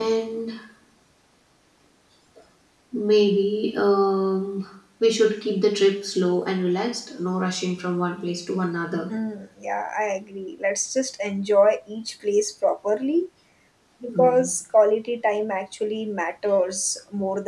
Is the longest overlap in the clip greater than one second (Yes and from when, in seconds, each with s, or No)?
No